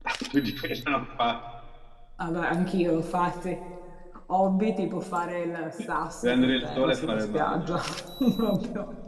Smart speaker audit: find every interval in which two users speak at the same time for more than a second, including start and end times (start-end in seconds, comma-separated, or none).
6.2-7.8